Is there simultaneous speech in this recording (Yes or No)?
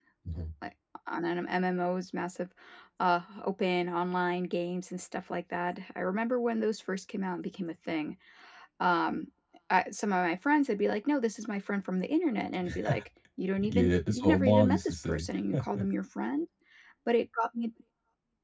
Yes